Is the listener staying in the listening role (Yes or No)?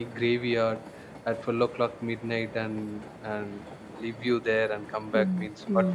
No